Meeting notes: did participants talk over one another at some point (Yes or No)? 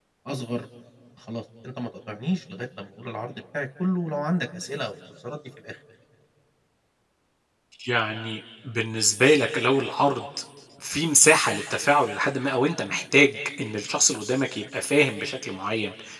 No